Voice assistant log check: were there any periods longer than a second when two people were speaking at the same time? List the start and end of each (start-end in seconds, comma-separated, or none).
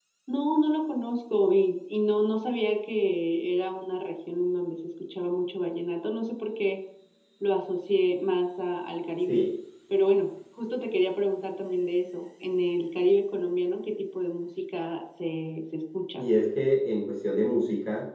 none